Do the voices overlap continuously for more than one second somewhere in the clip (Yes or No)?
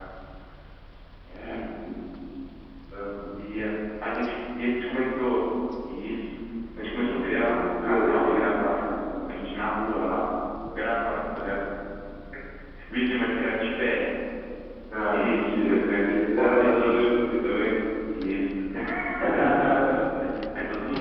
Yes